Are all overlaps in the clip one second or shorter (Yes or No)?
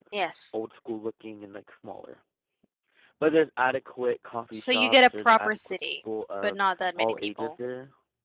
No